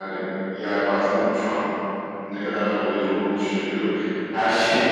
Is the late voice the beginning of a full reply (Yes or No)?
No